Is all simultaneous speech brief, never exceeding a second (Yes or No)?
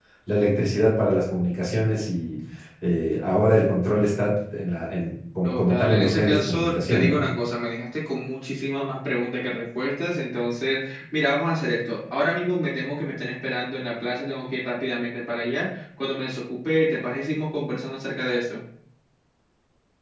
No